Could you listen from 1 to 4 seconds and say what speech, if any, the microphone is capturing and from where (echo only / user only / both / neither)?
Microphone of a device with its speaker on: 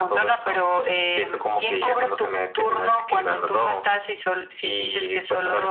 echo only